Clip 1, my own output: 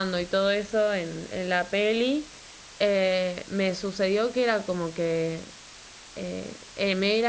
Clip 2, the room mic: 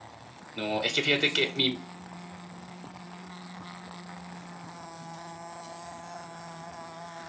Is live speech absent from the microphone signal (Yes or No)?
No